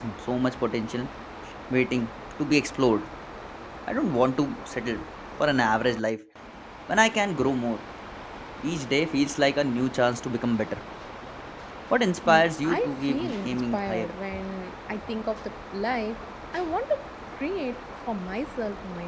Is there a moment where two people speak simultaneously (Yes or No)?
Yes